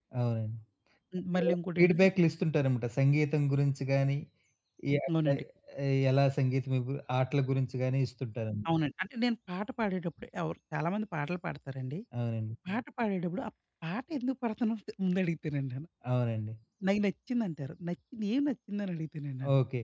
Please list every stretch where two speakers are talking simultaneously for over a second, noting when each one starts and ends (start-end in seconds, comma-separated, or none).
none